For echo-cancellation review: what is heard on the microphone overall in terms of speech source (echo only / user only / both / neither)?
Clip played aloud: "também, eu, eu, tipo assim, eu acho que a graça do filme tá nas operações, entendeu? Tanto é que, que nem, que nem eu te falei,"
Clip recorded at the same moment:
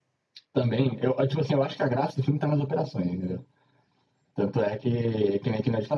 echo only